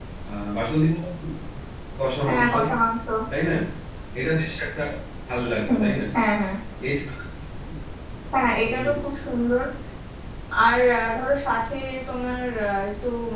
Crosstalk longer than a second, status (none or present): none